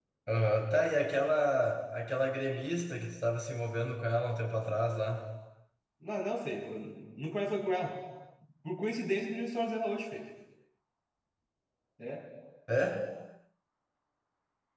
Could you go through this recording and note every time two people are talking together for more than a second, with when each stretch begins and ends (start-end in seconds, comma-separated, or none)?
none